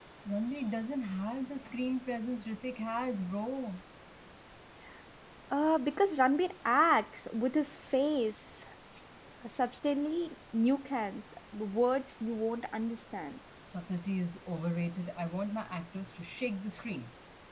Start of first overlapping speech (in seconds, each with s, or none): none